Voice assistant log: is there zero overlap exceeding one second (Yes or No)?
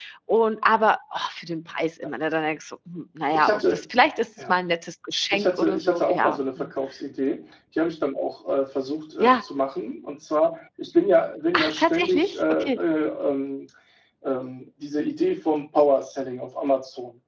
No